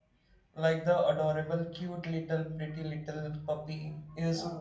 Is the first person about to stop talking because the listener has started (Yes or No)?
Yes